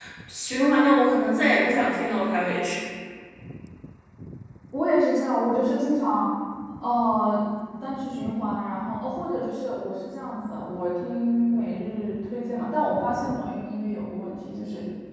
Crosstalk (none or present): none